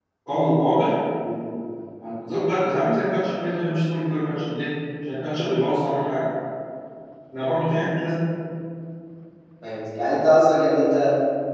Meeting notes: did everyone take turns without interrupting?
Yes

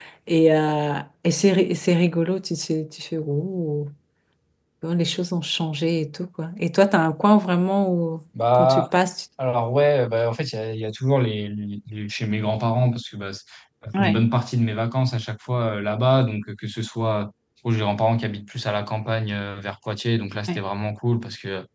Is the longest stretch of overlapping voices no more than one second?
Yes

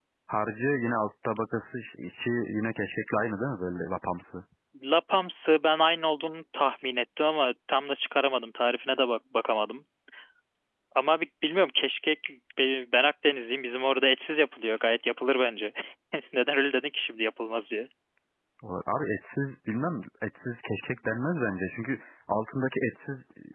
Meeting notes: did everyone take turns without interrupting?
Yes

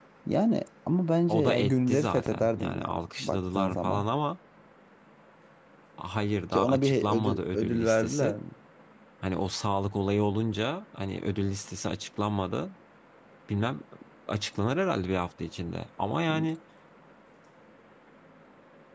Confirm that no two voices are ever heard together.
No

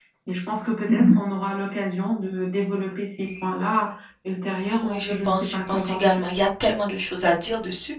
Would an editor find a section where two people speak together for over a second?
Yes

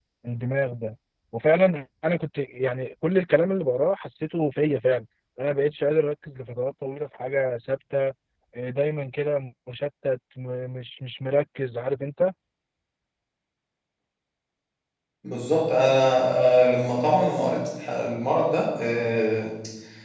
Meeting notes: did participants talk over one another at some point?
No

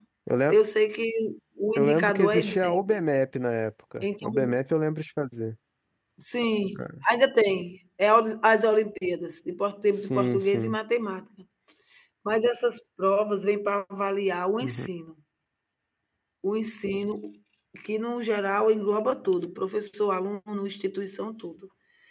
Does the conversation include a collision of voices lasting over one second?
Yes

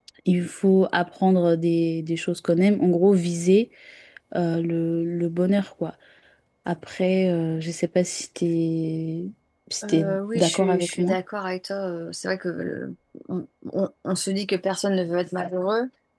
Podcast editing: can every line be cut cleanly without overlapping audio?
No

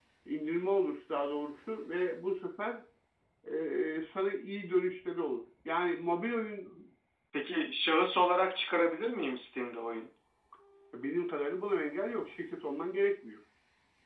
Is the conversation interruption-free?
Yes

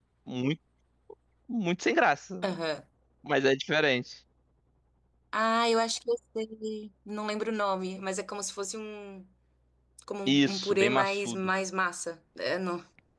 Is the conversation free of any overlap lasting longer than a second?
No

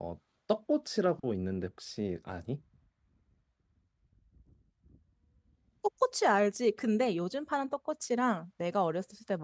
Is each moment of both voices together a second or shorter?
Yes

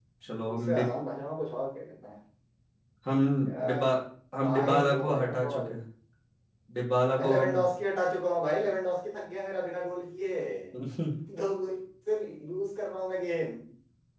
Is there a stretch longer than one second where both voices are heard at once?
Yes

